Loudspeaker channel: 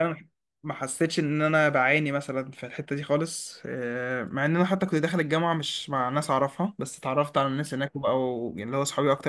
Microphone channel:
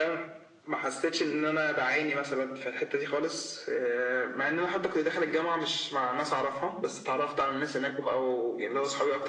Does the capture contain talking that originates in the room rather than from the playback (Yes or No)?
No